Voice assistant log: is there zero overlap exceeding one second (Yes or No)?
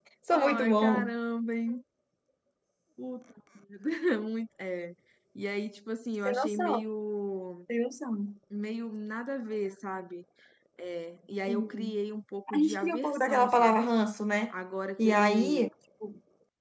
No